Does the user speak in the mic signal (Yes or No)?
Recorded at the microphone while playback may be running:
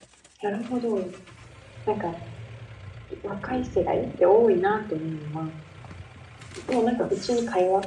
Yes